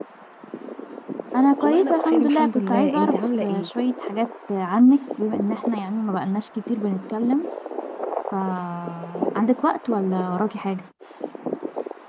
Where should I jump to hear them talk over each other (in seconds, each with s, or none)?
1.6 s